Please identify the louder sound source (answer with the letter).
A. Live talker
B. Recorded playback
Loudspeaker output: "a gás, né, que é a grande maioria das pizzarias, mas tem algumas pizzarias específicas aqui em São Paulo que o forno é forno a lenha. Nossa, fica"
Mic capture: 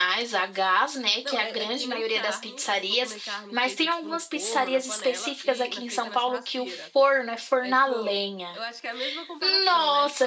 B